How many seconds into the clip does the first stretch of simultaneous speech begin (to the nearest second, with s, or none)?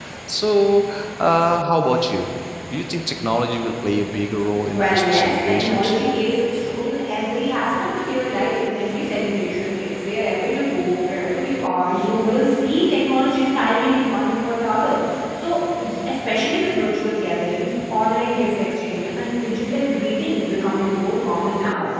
5 s